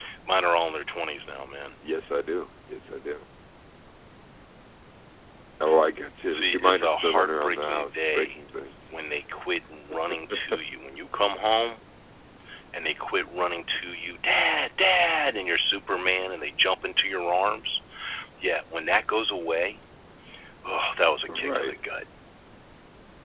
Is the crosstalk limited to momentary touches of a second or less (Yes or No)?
No